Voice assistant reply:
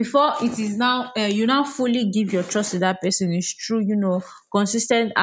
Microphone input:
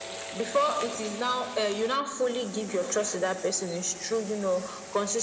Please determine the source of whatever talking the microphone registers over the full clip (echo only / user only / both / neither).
echo only